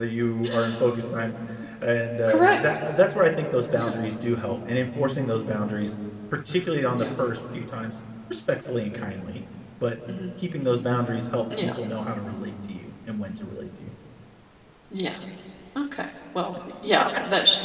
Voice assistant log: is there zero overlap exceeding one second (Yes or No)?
Yes